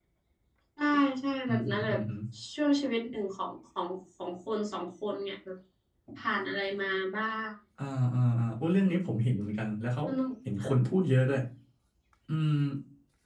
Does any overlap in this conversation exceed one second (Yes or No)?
No